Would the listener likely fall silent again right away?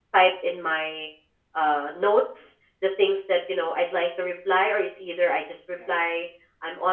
Yes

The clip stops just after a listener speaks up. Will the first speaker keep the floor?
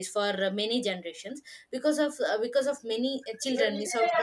Yes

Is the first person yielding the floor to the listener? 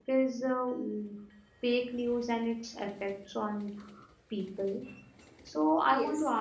No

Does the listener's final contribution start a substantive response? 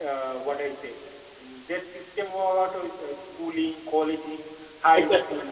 No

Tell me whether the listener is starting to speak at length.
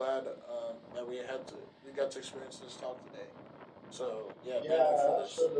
Yes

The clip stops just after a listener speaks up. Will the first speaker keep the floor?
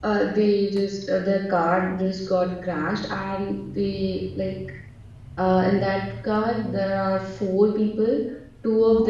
Yes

